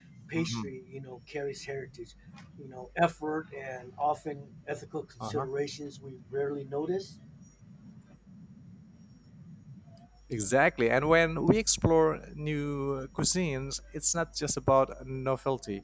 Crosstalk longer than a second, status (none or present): none